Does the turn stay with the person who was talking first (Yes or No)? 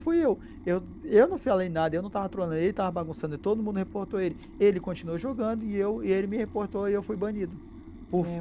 Yes